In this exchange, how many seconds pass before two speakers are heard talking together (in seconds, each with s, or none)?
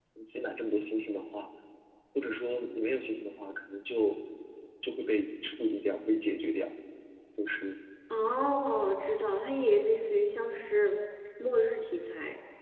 none